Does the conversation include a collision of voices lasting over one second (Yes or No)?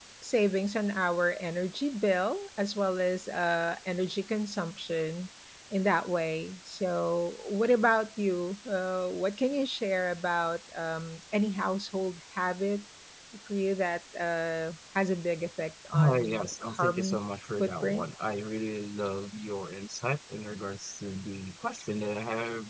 Yes